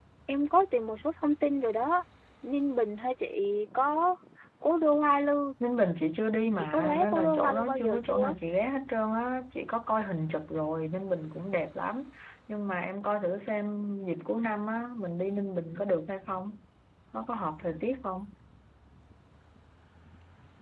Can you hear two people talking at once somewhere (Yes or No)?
Yes